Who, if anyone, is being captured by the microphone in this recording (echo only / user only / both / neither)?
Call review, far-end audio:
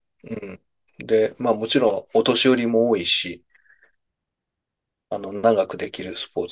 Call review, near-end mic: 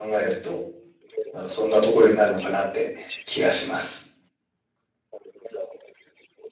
both